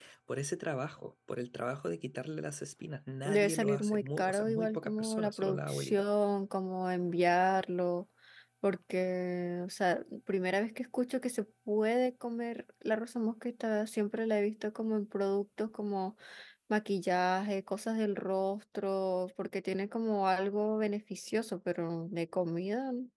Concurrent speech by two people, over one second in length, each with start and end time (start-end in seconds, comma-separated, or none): 3.2-6.0